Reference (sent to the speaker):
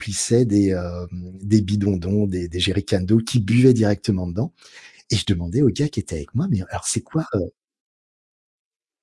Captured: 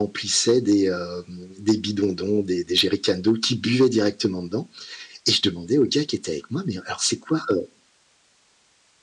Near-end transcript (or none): none